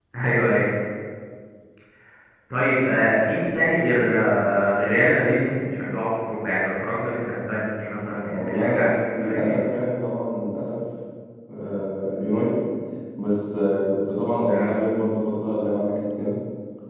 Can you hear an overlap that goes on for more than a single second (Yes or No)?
Yes